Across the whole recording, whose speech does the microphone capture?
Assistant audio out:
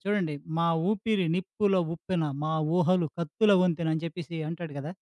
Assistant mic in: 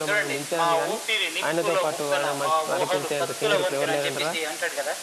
both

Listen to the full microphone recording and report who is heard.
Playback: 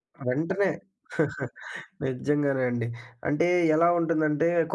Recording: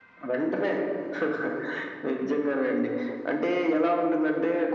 echo only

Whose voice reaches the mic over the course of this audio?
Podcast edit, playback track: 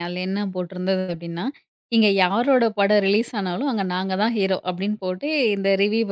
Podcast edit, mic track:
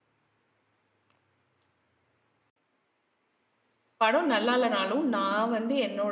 user only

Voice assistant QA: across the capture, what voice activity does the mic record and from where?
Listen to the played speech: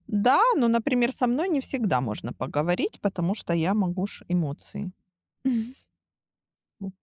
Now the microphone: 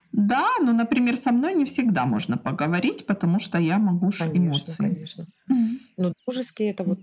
both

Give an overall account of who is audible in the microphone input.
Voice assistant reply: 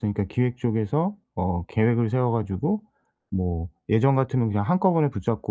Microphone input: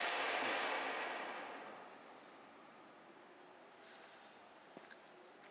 neither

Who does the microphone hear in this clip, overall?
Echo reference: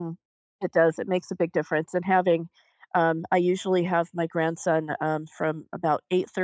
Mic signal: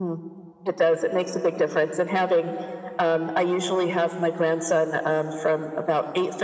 echo only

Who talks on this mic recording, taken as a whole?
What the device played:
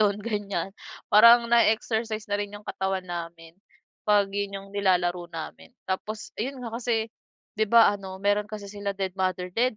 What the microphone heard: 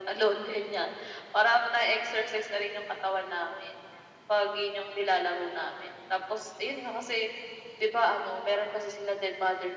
echo only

